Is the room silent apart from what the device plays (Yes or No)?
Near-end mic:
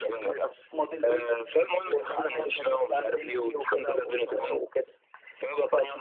Yes